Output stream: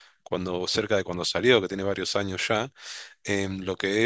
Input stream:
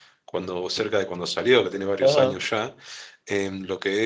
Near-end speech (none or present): present